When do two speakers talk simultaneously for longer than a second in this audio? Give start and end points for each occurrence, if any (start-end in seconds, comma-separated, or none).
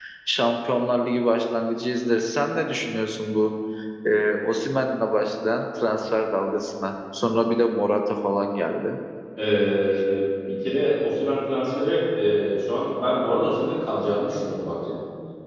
none